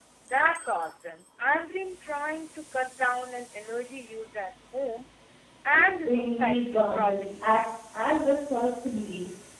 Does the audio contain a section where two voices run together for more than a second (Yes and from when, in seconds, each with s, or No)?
Yes, from 5.7 s